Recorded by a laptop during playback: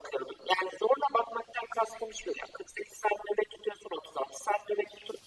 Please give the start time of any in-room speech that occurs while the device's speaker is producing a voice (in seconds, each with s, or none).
none